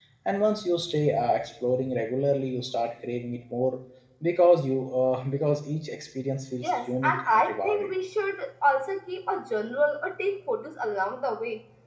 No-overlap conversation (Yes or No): No